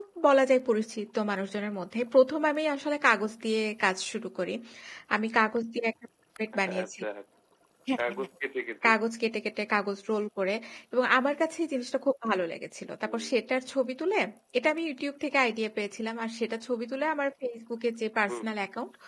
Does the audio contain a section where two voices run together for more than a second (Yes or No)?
No